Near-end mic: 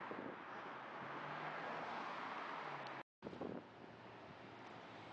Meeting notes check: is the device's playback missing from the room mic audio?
Yes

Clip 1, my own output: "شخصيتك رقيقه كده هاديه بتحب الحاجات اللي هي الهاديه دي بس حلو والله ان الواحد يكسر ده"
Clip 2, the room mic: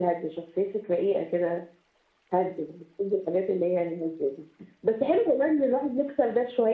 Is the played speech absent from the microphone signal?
No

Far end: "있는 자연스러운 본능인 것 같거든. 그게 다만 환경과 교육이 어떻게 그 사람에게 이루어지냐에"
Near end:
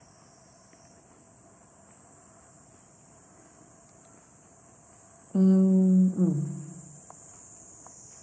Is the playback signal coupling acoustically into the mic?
No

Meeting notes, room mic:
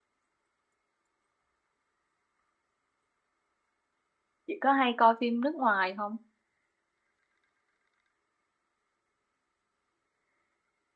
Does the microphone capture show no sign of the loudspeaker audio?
Yes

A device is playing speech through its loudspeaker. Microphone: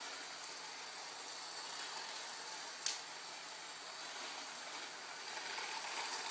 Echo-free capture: Yes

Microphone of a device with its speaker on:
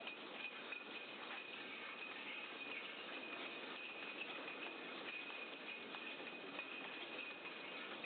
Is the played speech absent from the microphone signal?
Yes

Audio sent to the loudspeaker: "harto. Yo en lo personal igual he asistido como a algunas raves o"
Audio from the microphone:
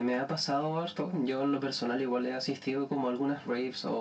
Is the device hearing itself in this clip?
Yes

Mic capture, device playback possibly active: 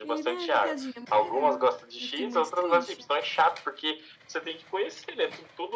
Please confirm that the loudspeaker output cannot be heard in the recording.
No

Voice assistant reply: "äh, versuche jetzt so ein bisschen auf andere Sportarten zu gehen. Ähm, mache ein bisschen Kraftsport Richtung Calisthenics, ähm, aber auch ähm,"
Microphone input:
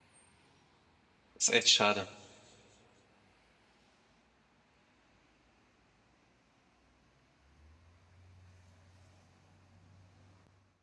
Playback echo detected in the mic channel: No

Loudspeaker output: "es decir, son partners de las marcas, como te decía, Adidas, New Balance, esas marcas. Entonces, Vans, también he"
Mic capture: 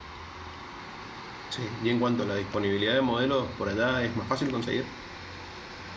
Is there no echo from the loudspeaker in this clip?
Yes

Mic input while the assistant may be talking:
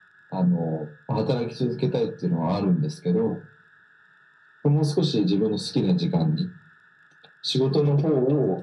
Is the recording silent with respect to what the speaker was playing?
No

